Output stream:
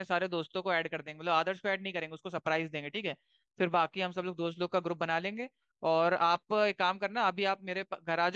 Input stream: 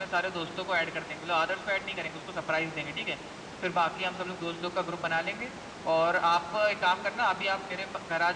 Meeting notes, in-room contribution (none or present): none